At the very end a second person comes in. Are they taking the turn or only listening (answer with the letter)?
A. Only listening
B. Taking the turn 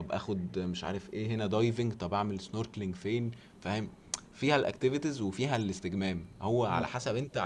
A